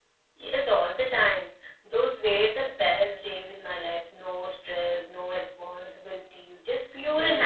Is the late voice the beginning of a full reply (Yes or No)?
Yes